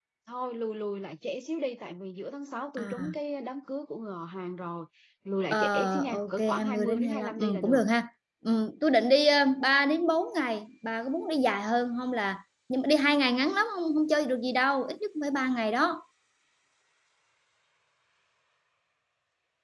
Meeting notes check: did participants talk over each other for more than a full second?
Yes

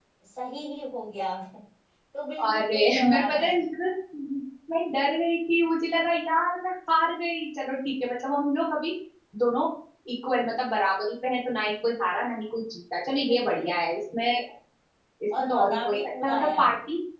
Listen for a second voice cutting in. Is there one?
Yes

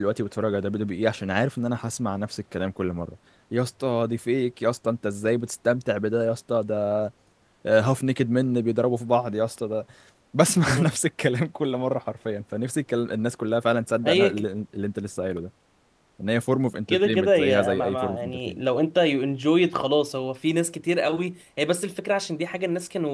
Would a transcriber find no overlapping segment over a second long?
No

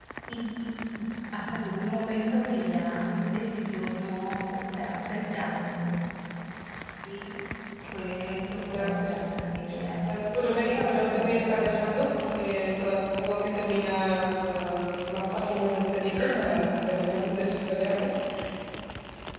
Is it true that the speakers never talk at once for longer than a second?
No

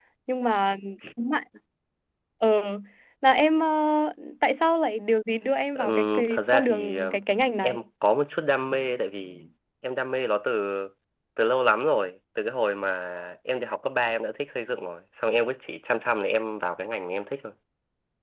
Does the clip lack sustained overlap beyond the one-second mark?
No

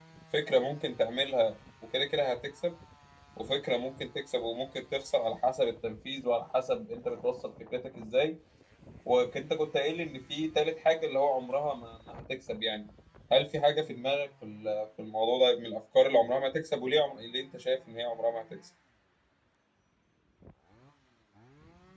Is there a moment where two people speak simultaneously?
No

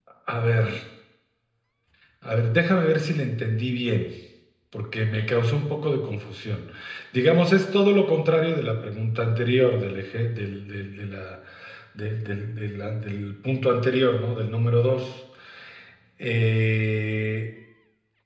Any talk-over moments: No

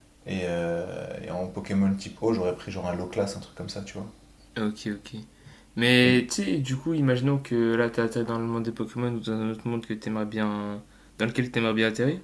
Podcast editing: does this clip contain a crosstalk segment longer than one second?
No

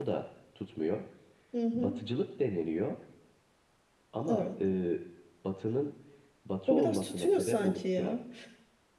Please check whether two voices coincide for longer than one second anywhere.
Yes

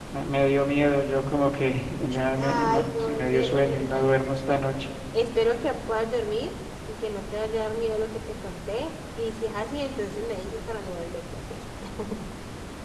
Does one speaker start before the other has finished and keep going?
Yes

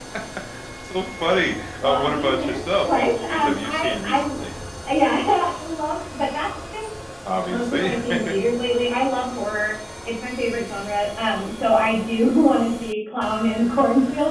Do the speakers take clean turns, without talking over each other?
No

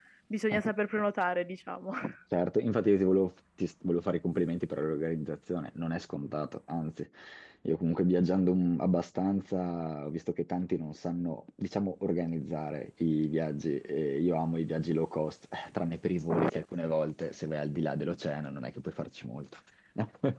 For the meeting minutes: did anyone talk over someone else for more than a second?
No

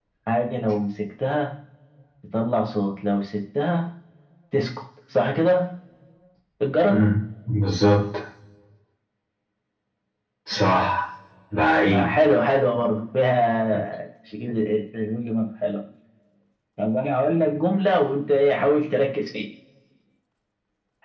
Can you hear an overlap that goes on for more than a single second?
No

